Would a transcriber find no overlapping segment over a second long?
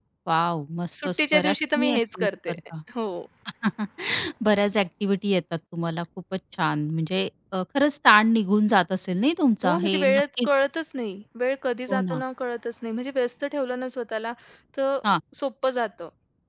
No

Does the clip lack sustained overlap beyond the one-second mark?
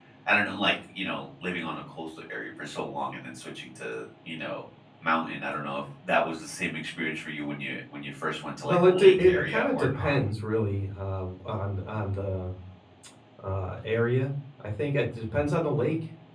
No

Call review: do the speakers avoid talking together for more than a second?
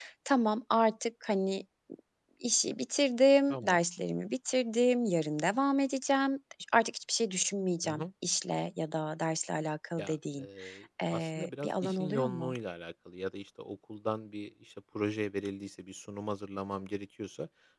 No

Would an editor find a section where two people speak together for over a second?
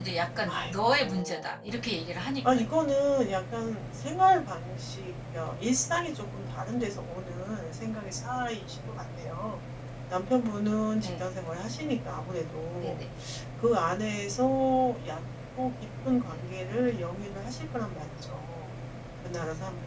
Yes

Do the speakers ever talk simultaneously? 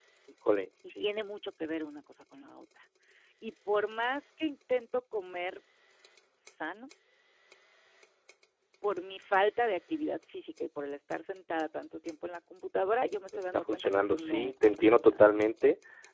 Yes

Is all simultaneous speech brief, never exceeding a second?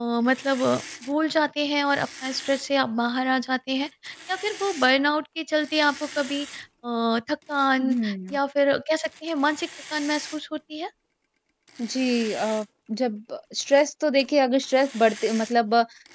Yes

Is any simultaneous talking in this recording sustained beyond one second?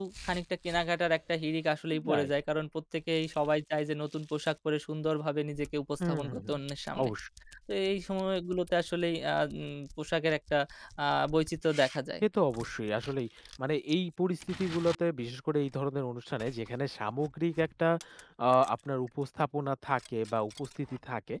No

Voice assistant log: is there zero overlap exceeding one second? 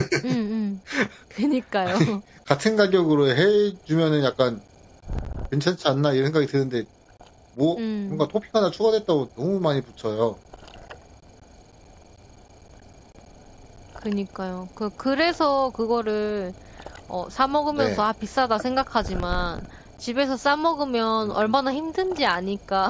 Yes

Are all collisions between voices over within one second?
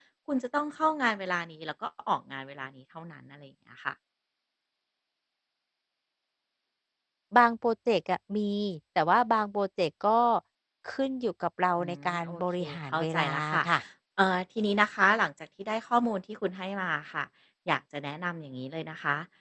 No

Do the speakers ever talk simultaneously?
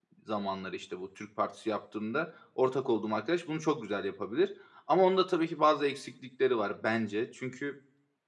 No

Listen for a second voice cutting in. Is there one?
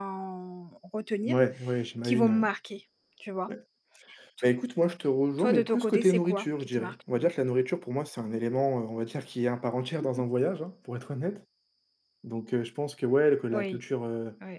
Yes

